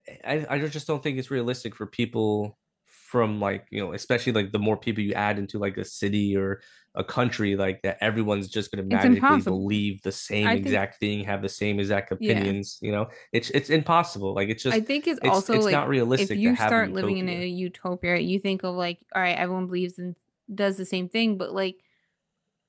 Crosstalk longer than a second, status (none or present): present